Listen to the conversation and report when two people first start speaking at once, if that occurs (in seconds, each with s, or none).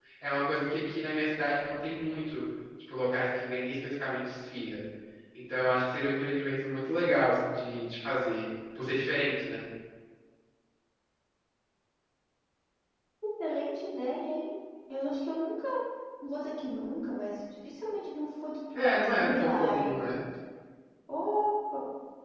18.8 s